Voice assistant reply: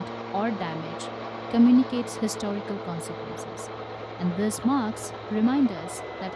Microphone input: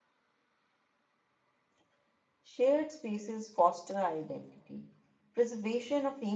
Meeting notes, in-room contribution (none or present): present